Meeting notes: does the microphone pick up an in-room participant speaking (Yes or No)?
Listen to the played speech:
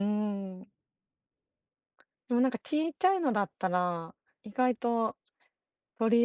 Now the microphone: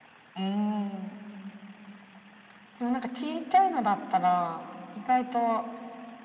No